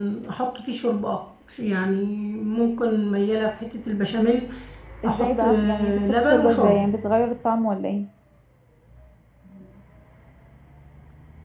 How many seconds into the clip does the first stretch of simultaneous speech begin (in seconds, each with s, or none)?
5.0 s